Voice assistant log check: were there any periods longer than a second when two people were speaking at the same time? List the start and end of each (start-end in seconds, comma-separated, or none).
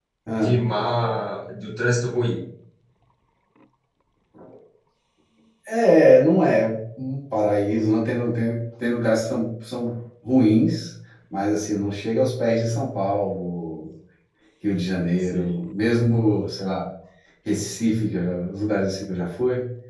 none